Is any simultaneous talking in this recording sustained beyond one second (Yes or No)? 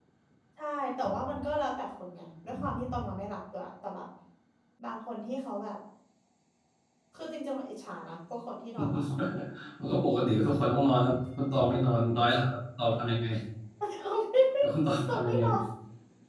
No